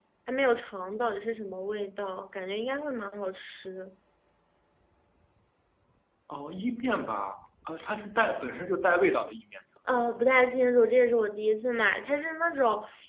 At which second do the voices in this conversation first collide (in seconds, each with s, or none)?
none